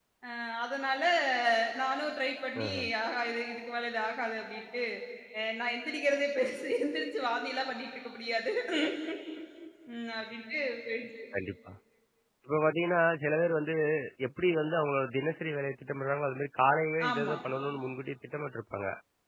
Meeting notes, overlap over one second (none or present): none